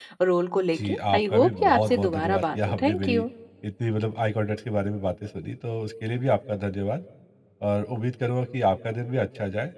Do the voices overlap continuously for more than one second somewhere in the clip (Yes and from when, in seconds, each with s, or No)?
Yes, from 0.8 s